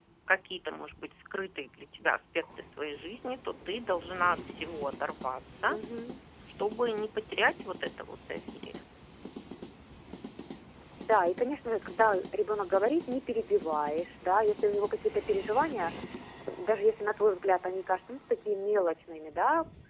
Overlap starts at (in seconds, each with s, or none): none